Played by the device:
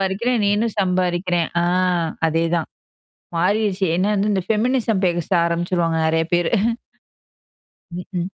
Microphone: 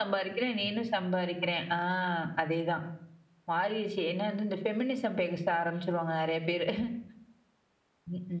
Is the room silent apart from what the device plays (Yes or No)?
Yes